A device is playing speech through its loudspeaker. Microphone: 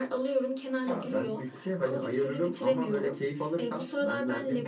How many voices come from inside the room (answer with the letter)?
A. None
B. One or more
A